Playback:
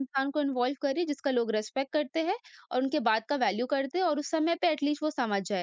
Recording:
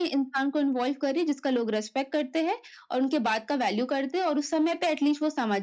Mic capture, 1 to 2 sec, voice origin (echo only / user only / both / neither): echo only